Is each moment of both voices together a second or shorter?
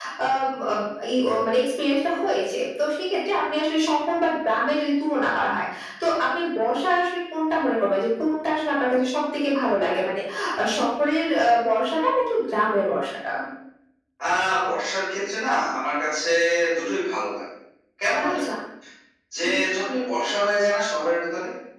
Yes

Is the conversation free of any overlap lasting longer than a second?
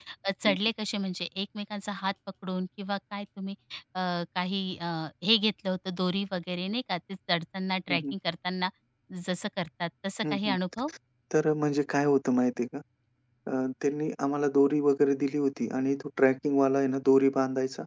Yes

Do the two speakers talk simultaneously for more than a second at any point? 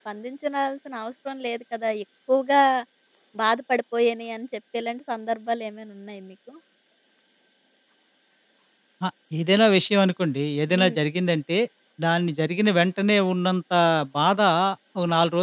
No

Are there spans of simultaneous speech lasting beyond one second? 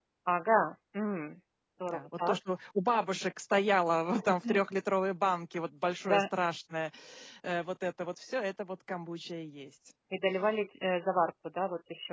No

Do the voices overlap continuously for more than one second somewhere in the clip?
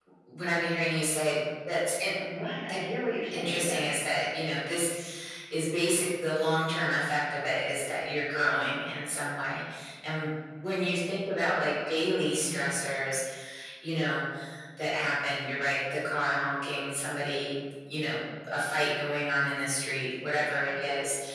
No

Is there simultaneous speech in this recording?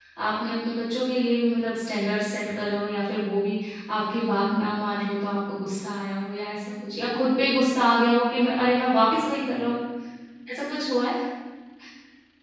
No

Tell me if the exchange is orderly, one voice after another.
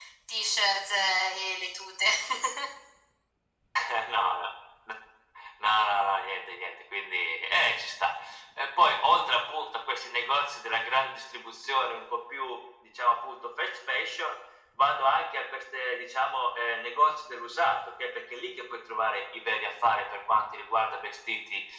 Yes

